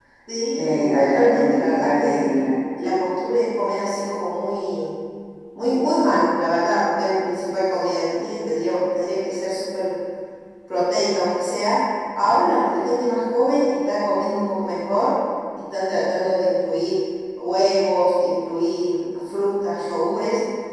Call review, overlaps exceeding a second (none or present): present